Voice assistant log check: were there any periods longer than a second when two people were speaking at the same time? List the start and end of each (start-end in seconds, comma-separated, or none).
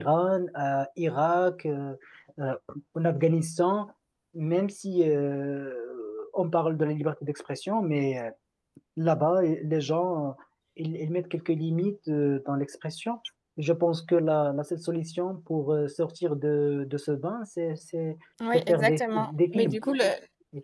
18.5-19.8